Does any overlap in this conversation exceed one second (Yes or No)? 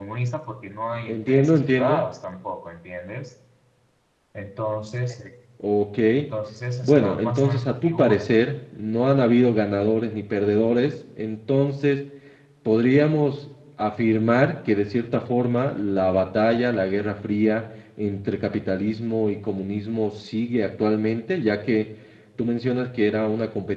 Yes